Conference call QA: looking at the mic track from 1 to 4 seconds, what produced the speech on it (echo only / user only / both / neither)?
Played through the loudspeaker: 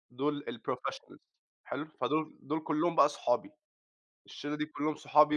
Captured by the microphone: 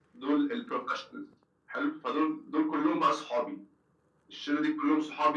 echo only